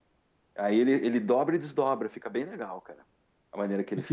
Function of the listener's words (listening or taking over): taking over